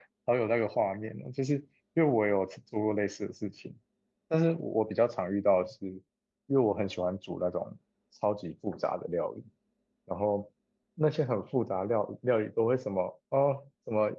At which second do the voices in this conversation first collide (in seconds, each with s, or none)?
none